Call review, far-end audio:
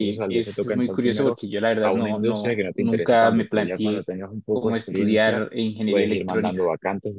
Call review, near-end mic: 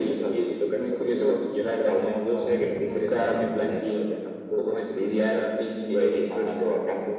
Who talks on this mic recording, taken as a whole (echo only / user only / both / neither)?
echo only